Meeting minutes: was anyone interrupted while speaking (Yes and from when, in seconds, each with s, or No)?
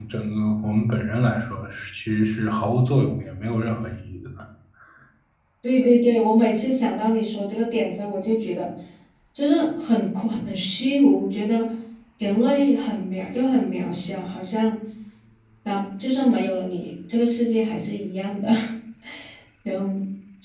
No